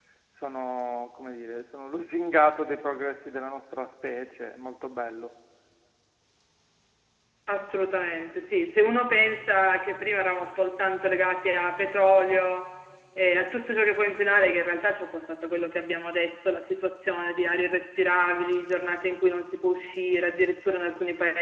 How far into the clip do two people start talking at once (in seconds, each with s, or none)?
none